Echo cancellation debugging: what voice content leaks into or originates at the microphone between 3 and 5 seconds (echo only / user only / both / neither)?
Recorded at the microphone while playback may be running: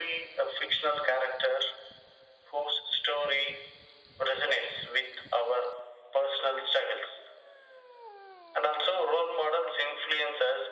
echo only